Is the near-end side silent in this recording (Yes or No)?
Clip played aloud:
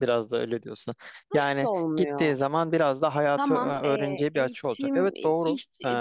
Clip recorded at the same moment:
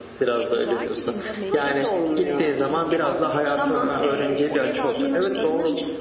No